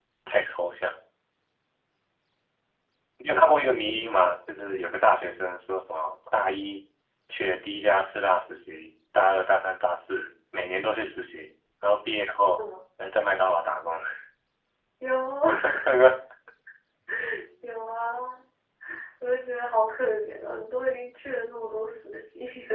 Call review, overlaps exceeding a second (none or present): none